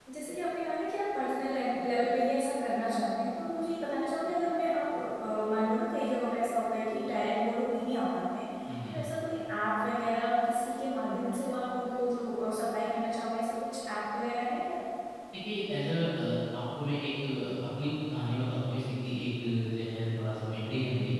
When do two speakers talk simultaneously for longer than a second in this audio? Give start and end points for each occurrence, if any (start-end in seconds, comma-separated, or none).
none